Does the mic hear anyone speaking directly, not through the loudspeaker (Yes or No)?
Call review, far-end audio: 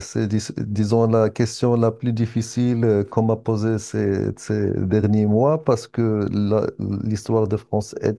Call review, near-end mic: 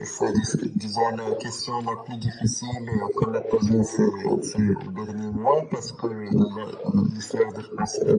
No